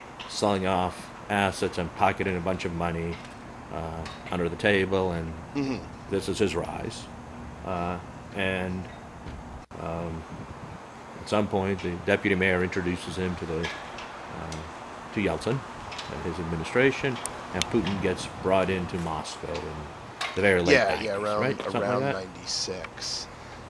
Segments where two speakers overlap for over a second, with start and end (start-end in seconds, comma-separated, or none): 20.6-22.2